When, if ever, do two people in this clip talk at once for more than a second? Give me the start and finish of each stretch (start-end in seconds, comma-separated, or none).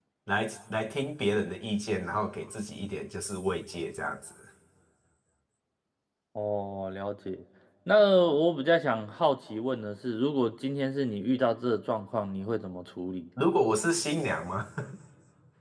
none